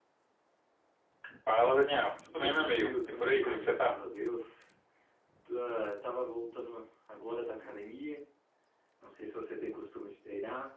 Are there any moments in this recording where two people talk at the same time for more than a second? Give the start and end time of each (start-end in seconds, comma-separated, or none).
2.4-3.9